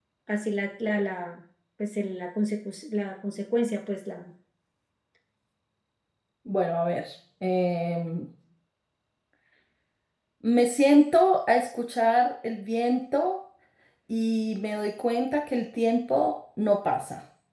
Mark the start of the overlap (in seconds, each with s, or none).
none